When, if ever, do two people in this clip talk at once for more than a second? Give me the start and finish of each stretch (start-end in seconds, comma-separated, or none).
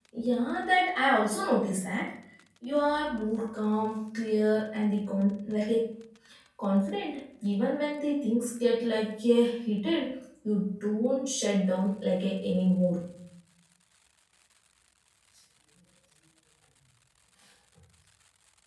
none